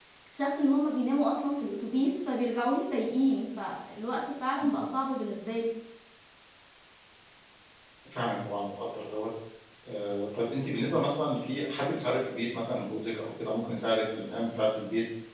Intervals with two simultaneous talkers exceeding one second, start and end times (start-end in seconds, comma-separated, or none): none